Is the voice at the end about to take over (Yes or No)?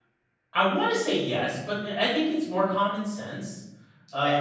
No